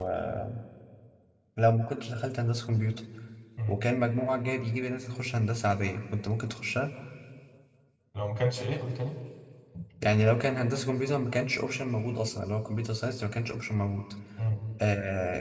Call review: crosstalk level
none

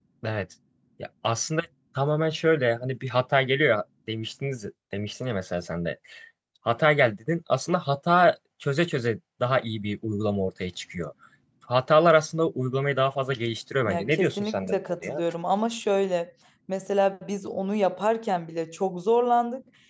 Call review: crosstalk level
present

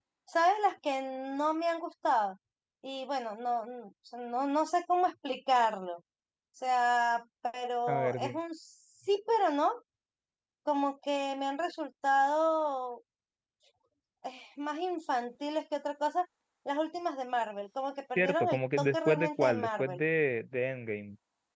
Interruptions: present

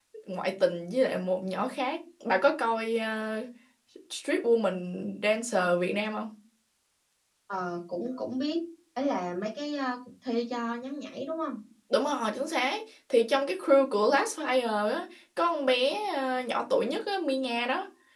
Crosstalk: none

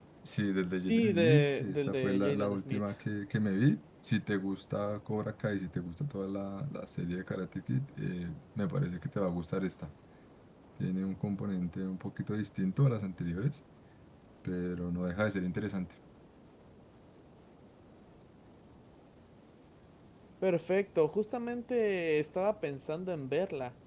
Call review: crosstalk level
present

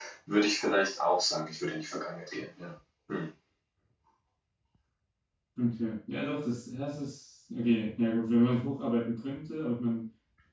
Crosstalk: none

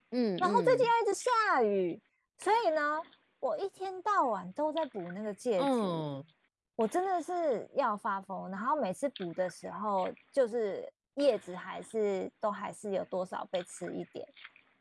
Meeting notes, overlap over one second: none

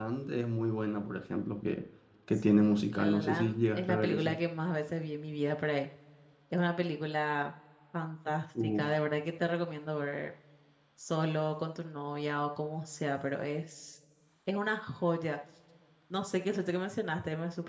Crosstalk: present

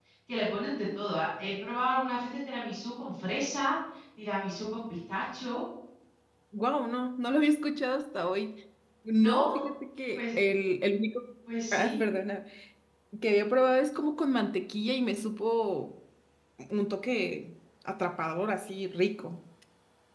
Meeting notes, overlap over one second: none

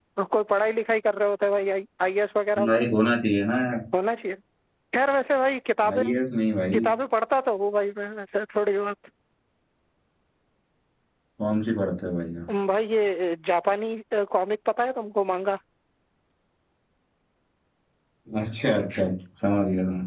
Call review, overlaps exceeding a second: none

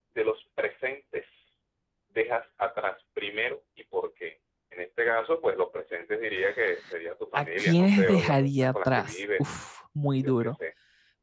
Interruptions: present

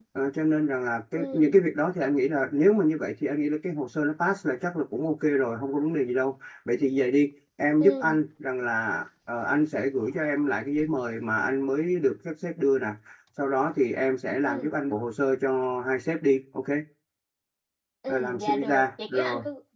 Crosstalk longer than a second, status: present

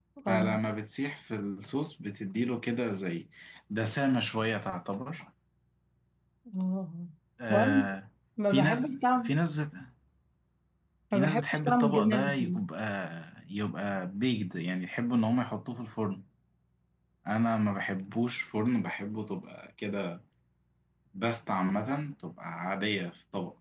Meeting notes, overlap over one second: present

